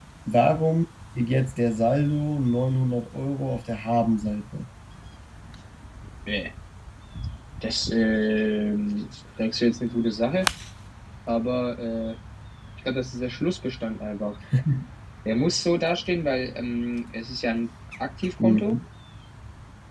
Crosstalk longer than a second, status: none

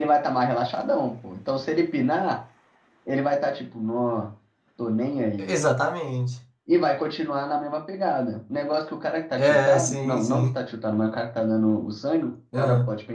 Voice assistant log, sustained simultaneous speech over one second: present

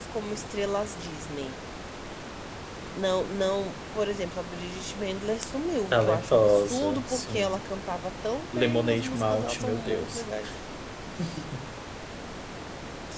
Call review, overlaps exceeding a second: present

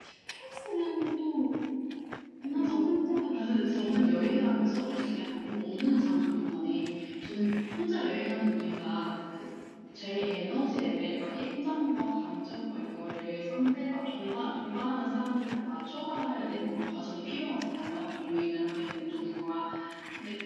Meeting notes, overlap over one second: present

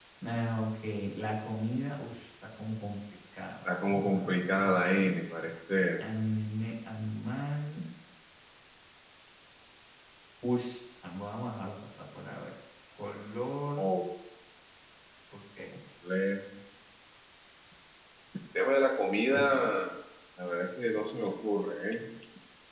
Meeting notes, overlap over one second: present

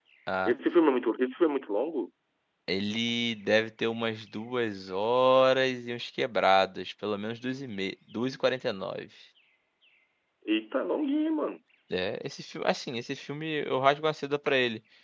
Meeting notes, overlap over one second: none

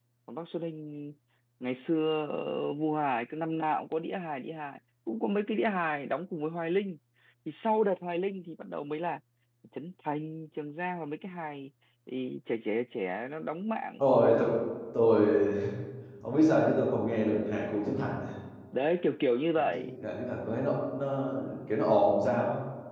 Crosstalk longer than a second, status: none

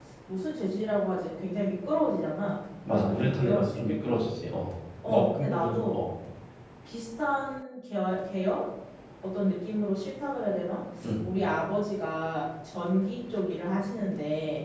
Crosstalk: present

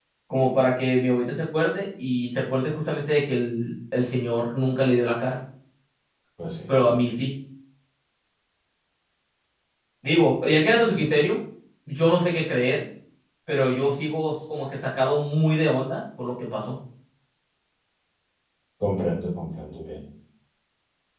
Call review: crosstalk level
none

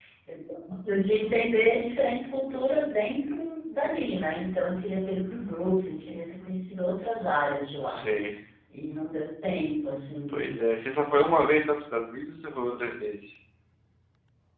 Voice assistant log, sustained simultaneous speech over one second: none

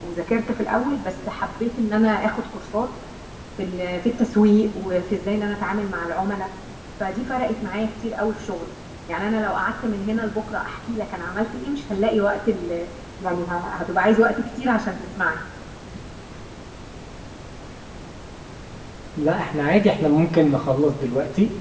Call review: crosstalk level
none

